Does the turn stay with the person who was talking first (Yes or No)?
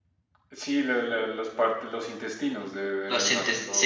No